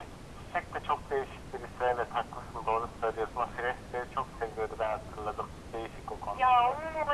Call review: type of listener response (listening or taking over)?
taking over